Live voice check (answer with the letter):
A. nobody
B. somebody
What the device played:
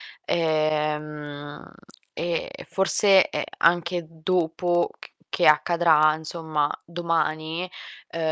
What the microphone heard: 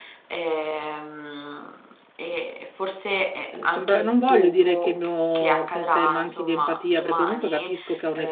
B